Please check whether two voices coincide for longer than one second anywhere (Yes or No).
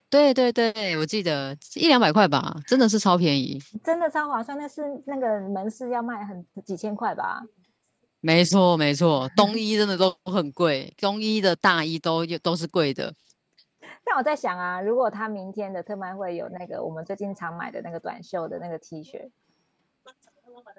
No